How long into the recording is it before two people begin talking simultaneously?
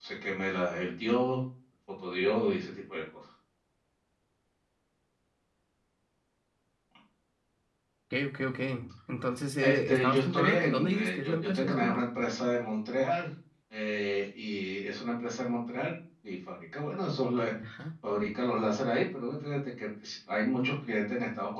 9.6 s

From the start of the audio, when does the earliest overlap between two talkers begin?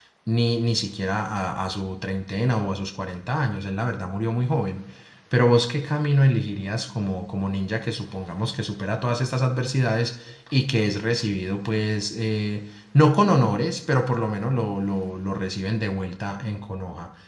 none

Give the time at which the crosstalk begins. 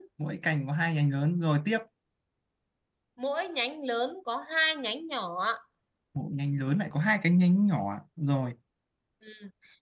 none

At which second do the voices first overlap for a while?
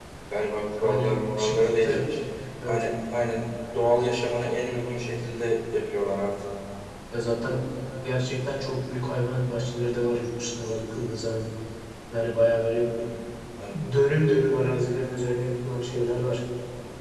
0.8 s

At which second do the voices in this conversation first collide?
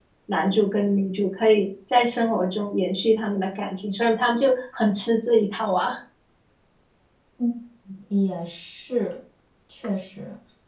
none

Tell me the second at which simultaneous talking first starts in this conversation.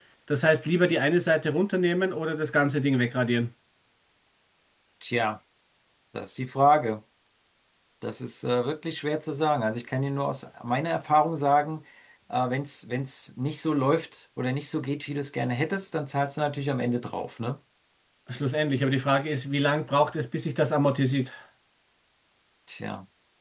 none

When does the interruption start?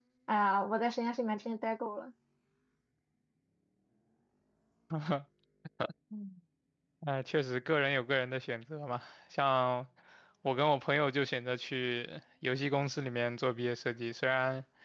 none

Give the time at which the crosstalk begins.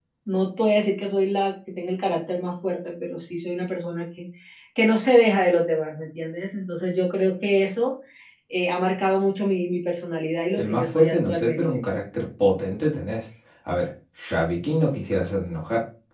10.6 s

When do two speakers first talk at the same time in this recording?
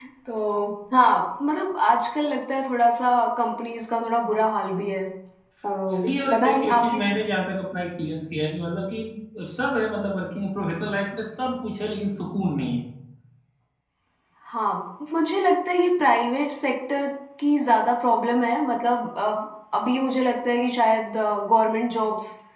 5.9 s

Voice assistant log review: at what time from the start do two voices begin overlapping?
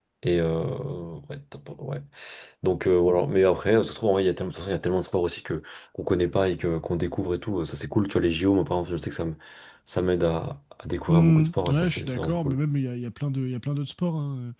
11.1 s

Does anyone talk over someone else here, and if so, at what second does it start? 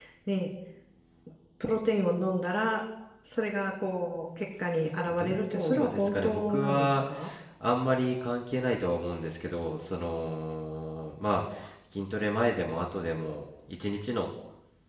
5.1 s

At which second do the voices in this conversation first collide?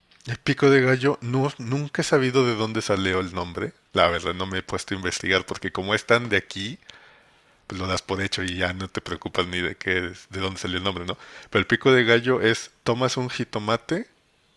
none

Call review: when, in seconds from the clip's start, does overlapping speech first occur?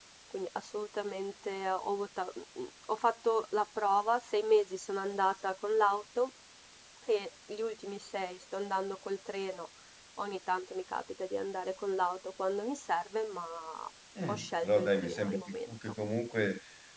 14.2 s

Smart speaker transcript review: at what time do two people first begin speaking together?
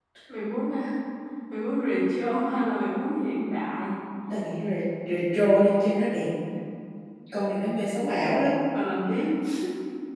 none

